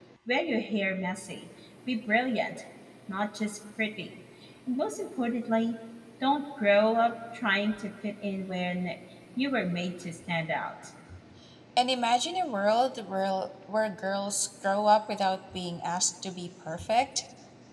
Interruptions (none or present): none